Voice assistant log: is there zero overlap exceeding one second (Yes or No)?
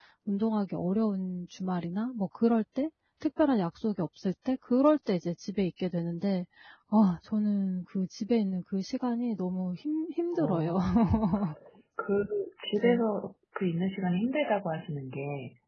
Yes